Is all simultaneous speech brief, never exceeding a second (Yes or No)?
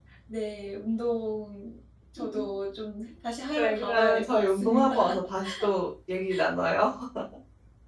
No